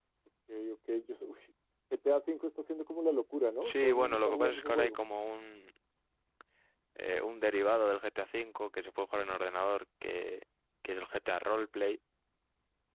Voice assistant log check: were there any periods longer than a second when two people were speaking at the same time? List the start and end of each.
3.6-5.0

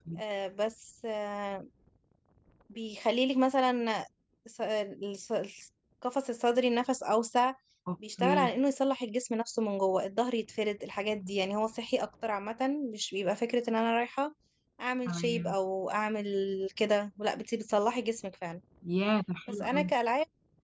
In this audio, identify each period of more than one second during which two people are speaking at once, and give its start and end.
none

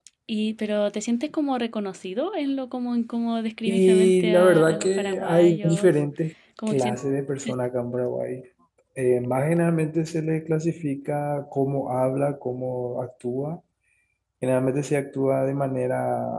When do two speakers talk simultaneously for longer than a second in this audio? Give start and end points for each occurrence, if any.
3.7-5.9

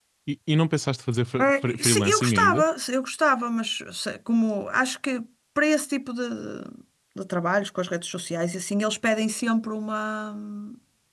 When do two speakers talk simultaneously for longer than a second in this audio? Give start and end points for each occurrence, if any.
1.4-2.6

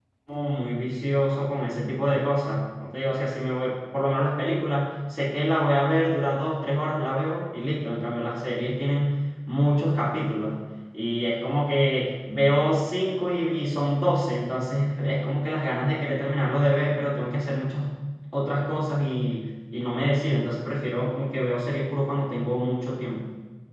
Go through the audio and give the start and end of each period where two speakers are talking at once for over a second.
none

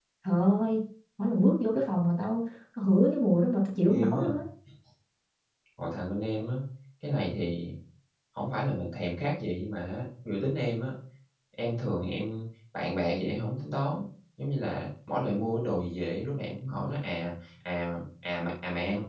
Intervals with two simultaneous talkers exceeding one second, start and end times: none

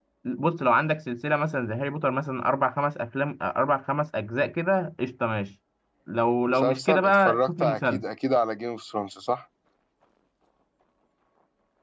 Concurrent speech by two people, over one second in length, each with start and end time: 6.5-8.0

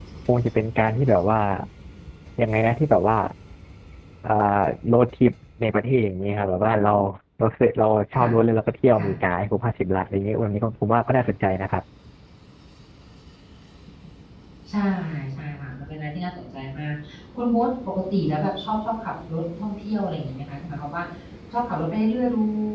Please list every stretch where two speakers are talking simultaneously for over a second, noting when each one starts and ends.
none

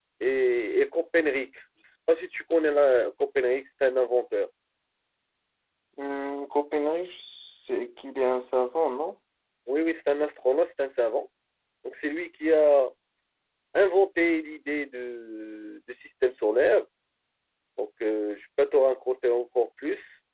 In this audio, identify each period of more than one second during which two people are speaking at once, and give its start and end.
none

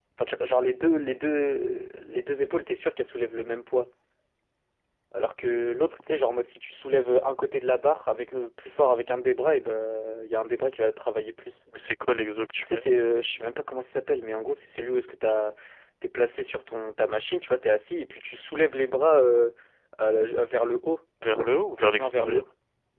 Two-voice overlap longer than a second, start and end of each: none

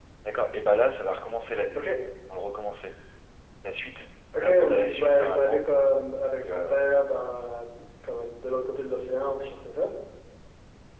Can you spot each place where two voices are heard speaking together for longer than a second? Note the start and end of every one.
4.4-5.6

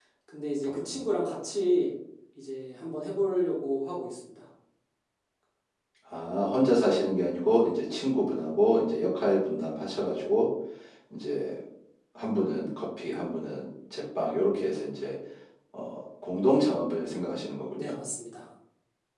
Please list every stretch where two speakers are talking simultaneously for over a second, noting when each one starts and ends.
none

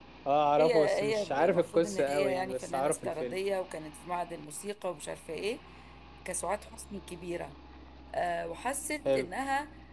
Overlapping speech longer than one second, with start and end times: 0.6-3.4

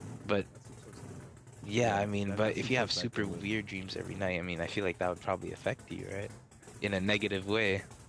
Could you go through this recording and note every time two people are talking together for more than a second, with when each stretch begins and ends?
1.8-3.4

